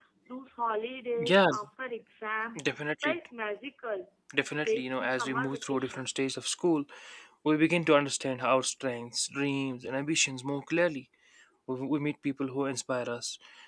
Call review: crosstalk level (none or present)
present